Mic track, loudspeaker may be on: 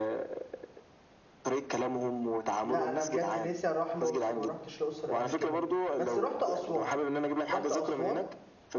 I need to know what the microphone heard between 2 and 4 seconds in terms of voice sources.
both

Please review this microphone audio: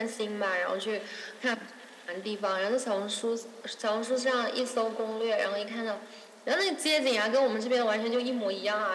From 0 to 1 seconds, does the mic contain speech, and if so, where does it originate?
echo only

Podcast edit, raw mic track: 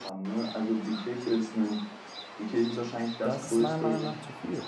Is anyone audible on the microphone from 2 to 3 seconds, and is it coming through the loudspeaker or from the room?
echo only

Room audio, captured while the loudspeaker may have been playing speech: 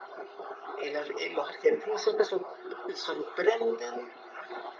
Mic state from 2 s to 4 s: echo only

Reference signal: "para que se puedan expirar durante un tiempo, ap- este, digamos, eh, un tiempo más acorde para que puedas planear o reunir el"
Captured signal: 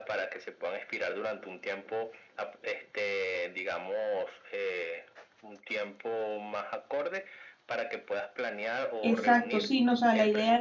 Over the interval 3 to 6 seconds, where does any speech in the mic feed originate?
echo only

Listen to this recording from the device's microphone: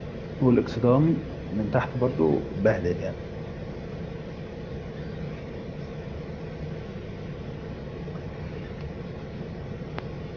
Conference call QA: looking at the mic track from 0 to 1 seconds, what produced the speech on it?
user only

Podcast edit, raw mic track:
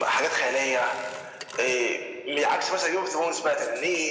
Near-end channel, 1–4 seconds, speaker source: echo only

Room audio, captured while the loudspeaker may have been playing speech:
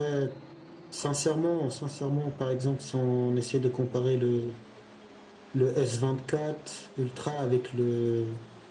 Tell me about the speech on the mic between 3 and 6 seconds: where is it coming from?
echo only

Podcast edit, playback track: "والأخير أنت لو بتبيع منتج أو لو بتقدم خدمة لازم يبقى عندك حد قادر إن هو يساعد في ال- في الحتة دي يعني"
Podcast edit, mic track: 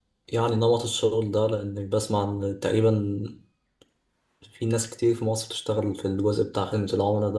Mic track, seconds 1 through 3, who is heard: user only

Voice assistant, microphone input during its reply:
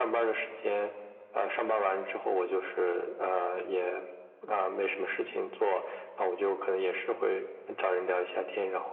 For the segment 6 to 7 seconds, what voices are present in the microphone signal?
echo only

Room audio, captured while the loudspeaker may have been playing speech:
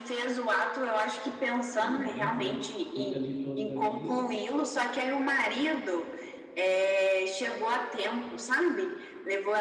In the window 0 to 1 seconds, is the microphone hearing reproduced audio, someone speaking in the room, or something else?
echo only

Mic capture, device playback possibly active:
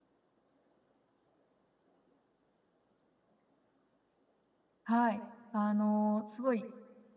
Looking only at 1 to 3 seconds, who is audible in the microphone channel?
neither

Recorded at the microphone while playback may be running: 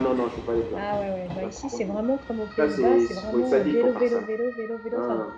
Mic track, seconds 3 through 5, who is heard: both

